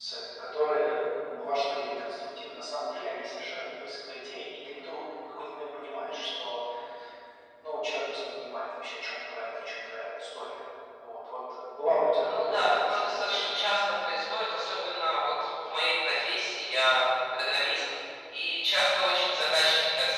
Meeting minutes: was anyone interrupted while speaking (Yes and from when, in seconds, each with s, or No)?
Yes, from 12.2 s